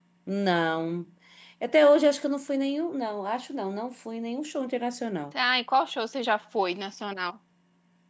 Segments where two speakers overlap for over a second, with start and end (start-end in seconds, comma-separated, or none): none